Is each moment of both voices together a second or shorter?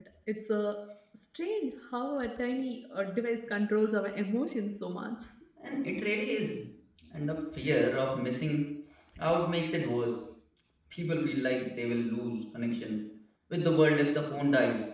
Yes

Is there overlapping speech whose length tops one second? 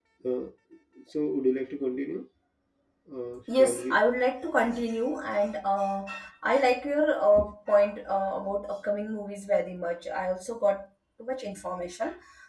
No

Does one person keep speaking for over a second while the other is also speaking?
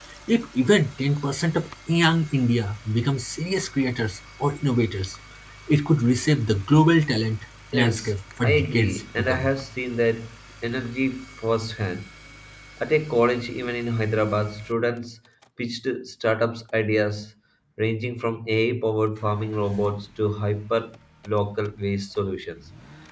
Yes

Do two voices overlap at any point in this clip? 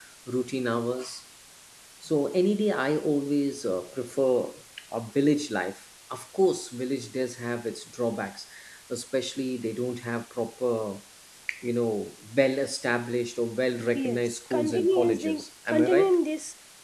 Yes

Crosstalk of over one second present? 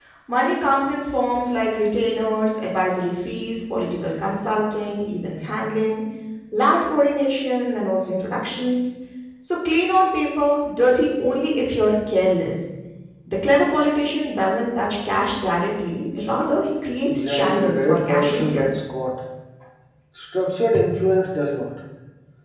Yes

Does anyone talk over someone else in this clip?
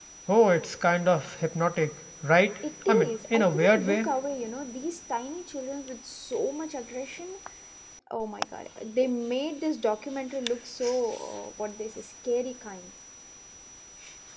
Yes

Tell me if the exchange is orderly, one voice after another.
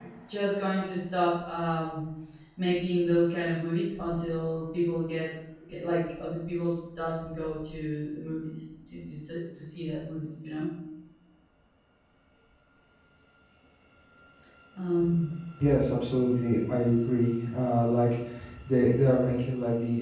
Yes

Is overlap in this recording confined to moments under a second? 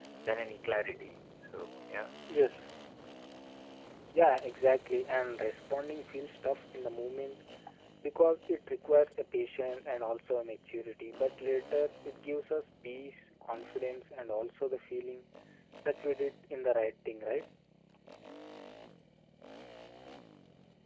Yes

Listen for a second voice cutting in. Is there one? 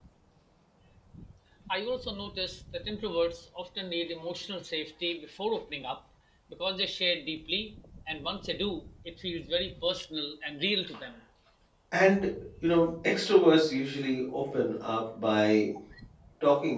No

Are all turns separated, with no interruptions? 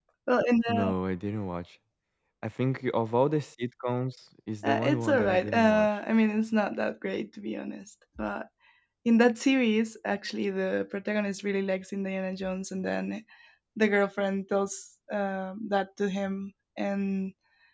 No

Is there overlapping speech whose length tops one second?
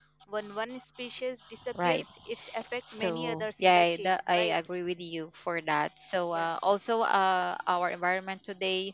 Yes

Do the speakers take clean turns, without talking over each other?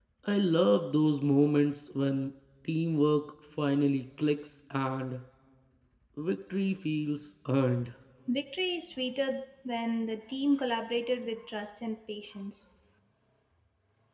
Yes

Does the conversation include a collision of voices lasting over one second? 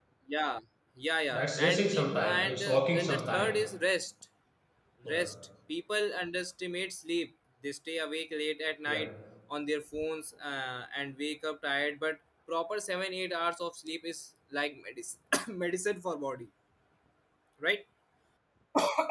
Yes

